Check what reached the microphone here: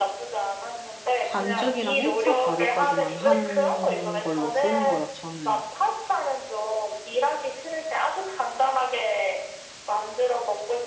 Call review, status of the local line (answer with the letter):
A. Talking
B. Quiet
A